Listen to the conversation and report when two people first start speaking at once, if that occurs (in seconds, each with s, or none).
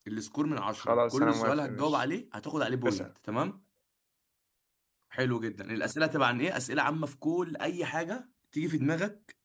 0.8 s